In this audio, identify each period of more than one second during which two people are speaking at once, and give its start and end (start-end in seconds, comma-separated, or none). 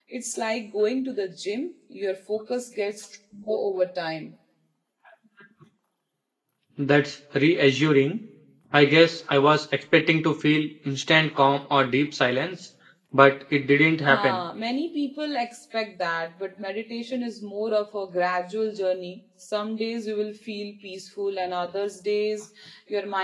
none